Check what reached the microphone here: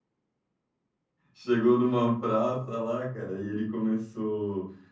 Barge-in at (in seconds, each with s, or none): 1.3 s